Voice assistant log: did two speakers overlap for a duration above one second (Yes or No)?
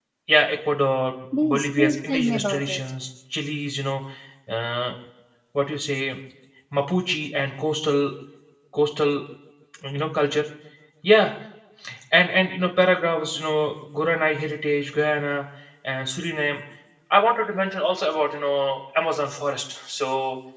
Yes